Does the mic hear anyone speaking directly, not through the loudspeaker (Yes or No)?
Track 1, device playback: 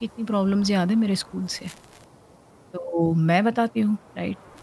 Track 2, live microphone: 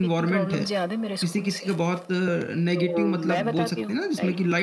Yes